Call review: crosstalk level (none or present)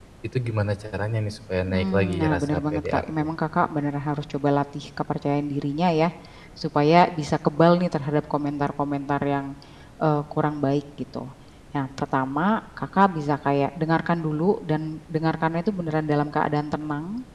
present